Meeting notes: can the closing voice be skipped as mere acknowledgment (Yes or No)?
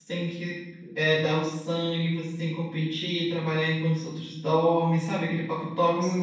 No